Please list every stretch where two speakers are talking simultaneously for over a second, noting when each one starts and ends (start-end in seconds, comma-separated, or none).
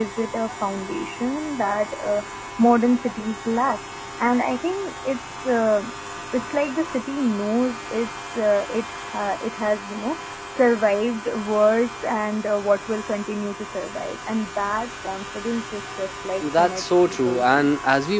16.4-17.7